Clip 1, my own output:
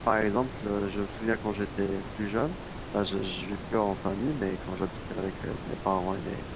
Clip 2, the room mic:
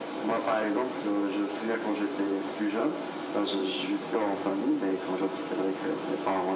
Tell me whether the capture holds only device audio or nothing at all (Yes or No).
Yes